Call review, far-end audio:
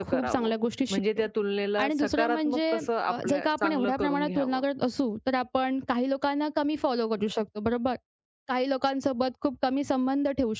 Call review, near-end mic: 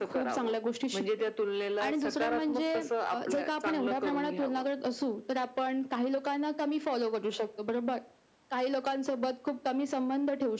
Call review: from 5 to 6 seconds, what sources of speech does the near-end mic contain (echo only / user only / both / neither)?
echo only